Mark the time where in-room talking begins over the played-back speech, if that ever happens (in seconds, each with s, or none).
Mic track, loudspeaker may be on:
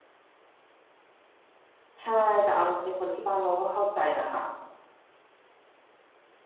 2.0 s